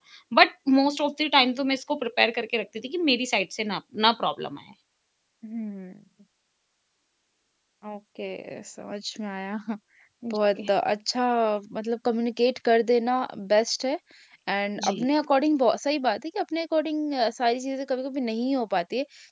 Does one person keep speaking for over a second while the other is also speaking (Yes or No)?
No